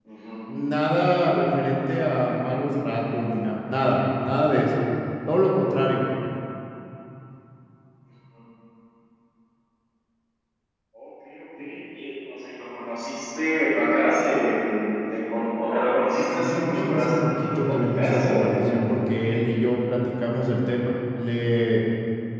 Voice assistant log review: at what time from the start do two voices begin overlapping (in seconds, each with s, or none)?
16.4 s